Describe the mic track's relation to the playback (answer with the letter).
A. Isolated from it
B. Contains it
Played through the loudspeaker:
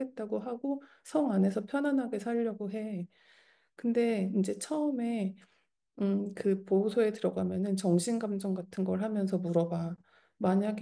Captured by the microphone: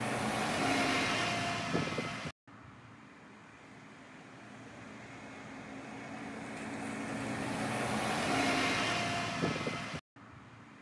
A